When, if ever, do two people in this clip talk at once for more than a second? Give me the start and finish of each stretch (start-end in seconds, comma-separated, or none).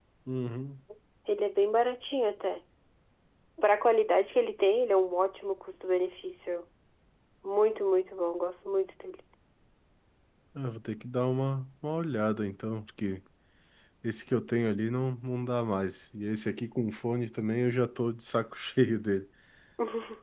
none